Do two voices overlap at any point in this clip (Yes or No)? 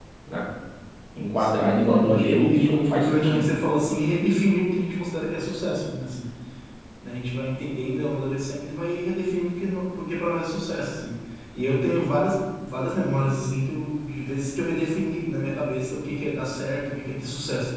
Yes